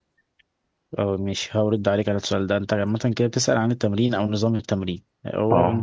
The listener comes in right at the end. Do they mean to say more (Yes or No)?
No